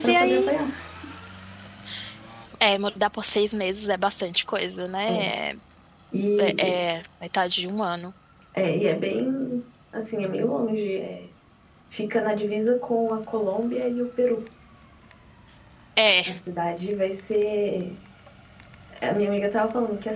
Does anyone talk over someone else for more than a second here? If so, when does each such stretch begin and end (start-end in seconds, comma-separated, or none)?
none